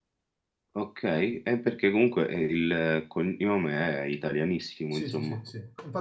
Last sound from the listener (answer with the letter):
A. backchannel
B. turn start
B